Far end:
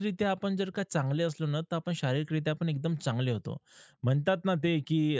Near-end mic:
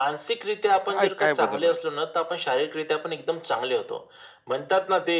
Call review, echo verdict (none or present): present